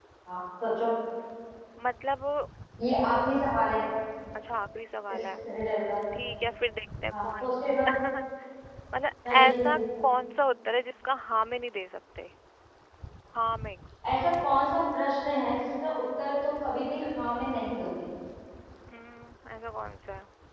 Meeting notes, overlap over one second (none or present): none